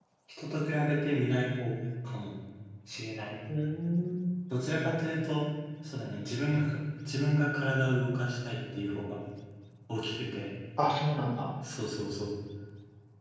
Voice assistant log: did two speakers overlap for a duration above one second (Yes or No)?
No